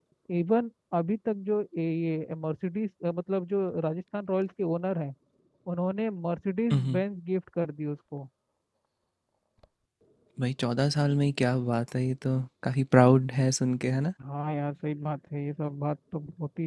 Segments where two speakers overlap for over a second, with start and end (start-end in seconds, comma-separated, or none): none